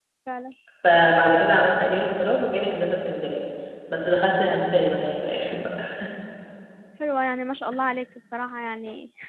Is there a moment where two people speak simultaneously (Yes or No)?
No